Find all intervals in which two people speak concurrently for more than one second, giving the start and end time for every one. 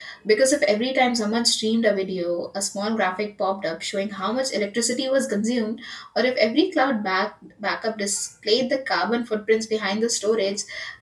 none

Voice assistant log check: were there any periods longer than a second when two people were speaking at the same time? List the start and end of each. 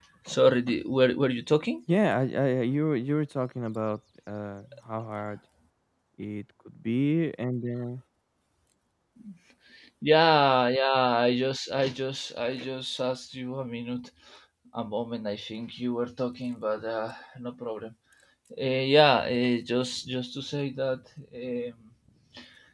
none

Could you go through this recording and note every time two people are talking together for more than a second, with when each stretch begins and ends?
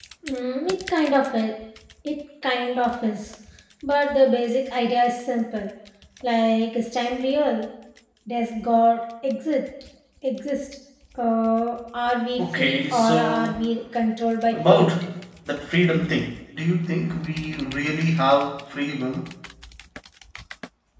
12.4-13.6

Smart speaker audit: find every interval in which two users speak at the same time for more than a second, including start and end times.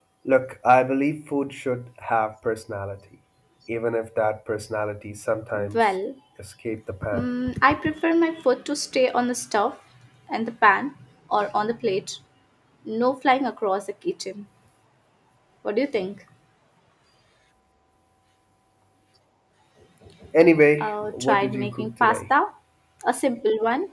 20.8-22.2

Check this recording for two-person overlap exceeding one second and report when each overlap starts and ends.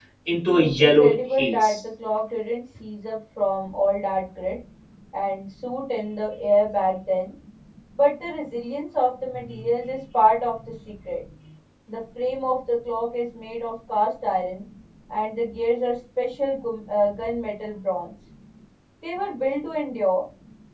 0.6-1.8

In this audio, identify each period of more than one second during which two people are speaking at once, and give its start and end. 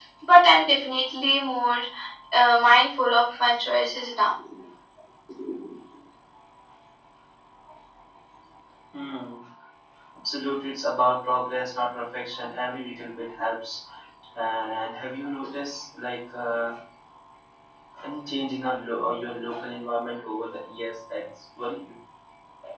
none

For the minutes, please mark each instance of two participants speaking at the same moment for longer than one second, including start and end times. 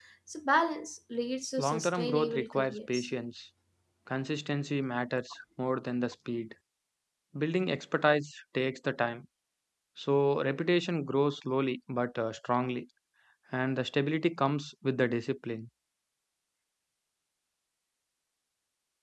1.6-3.1

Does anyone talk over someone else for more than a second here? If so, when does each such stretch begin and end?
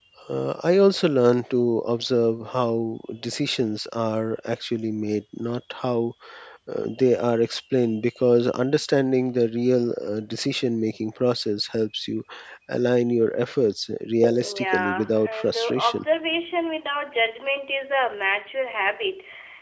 14.5-16.0

